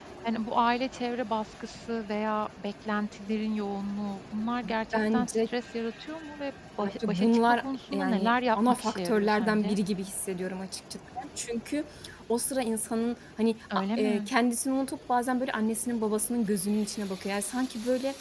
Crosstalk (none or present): present